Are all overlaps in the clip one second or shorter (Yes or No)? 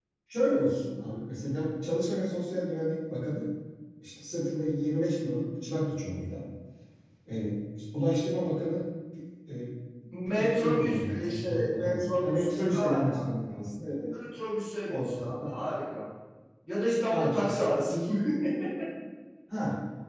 No